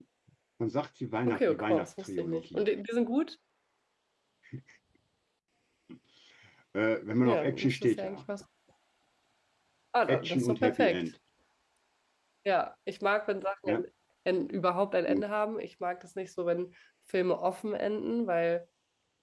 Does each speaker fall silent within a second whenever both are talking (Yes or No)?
No